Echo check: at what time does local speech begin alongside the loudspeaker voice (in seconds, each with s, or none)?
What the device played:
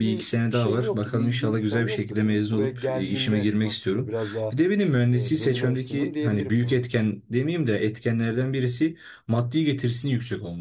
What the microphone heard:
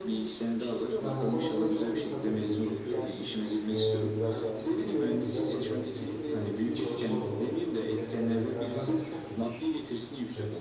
1.0 s